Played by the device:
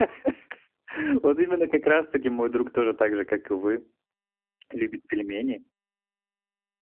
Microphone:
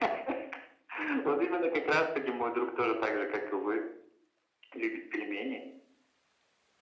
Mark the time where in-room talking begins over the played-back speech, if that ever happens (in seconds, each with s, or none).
none